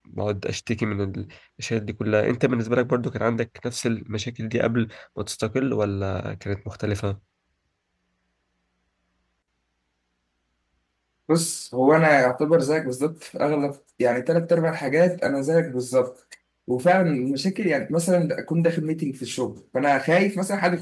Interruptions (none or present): none